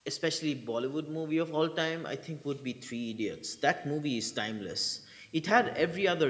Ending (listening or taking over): listening